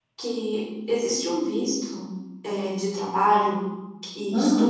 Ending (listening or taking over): listening